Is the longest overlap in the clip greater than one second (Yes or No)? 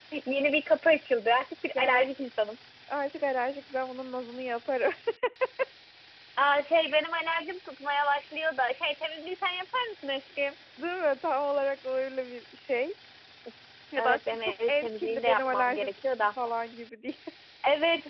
Yes